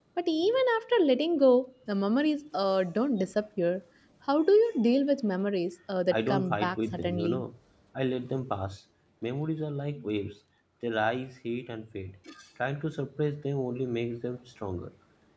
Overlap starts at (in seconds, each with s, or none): 6.1 s